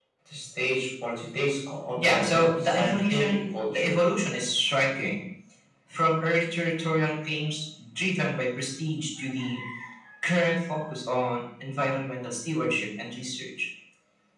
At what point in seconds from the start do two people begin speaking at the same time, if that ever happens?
1.9 s

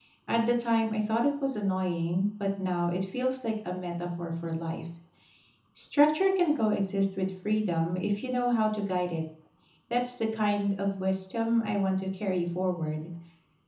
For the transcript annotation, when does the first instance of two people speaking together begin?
none

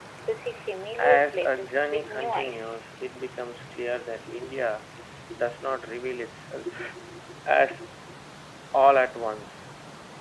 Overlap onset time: 1.0 s

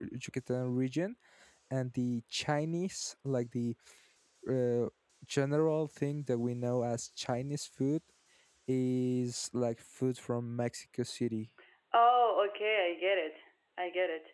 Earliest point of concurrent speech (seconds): none

